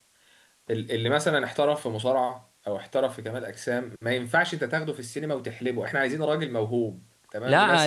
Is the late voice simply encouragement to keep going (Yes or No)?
No